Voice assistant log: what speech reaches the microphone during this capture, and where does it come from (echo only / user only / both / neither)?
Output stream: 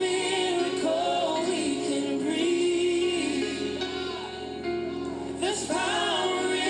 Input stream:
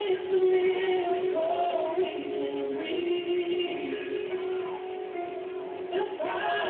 echo only